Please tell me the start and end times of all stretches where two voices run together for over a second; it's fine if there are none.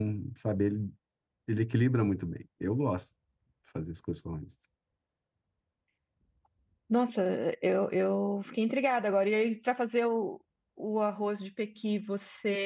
none

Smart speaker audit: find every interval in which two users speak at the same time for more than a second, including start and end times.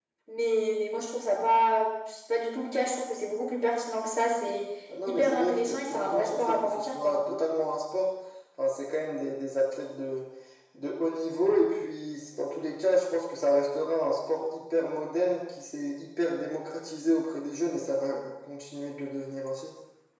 5.0-7.2

